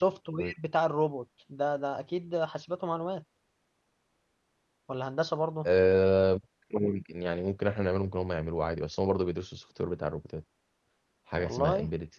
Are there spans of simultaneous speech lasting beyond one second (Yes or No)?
No